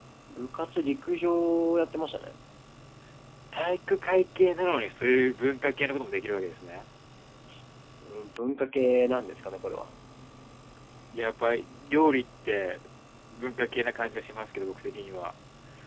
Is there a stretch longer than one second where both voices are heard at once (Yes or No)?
No